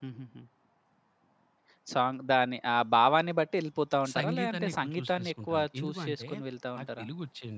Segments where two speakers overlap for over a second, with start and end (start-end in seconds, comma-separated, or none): 4.2-6.3